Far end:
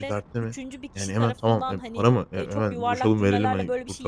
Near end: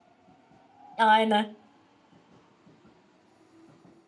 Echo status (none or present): none